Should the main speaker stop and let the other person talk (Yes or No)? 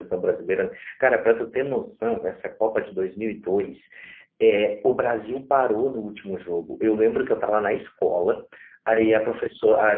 No